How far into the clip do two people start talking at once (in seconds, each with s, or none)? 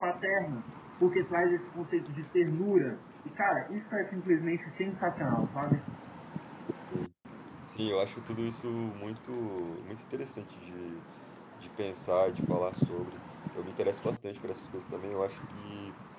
none